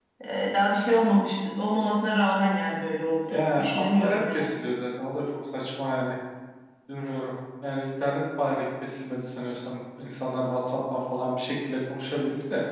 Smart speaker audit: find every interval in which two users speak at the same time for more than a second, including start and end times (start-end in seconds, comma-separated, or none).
3.2-4.5